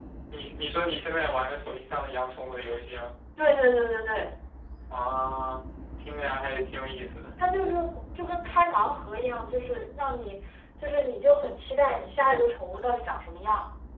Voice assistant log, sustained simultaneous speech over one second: none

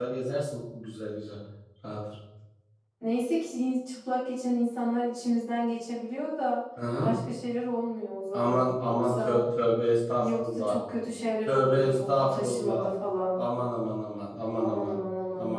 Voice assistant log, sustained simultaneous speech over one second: present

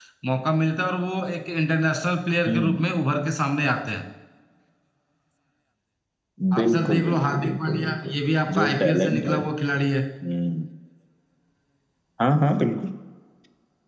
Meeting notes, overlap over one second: present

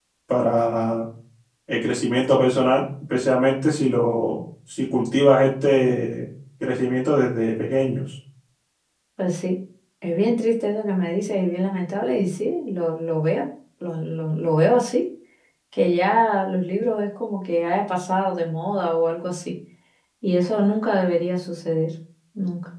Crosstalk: none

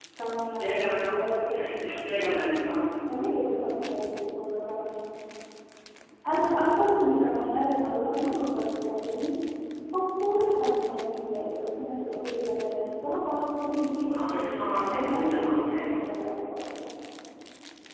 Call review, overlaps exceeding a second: present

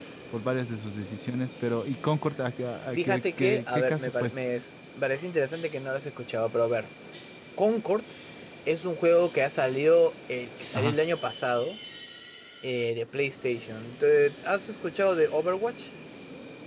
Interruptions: present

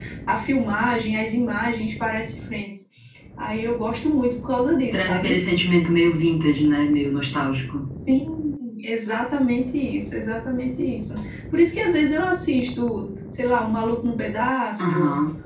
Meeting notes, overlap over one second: none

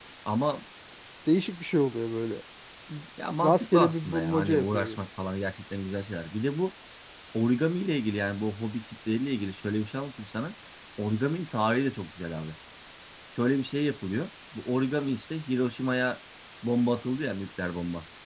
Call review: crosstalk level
present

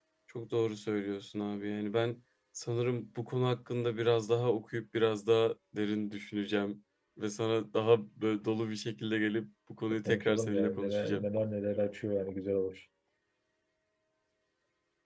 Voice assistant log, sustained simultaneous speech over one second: present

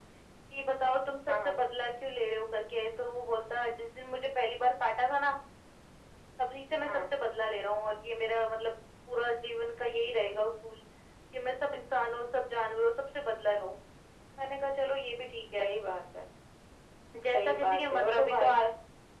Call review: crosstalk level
present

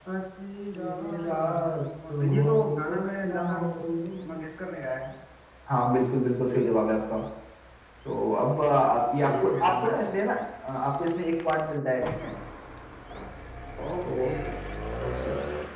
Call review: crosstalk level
present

